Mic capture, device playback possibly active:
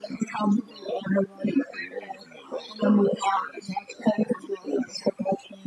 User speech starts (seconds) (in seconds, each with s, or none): none